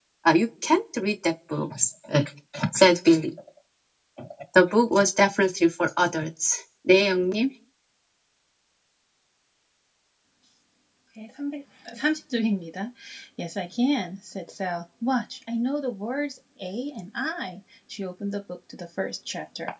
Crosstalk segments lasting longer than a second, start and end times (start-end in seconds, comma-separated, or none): none